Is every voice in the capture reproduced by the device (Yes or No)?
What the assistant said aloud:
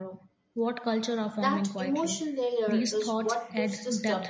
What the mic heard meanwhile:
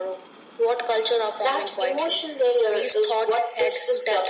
Yes